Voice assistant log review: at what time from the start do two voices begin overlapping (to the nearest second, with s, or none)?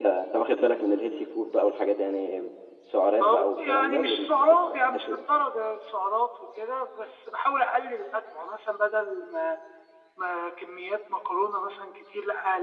3 s